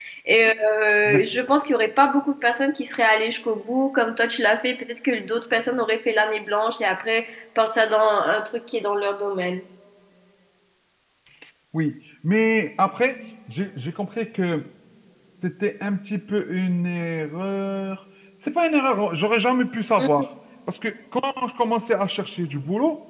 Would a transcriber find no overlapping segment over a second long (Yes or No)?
Yes